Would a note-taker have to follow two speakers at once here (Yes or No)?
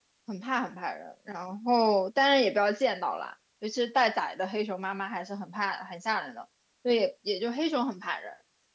No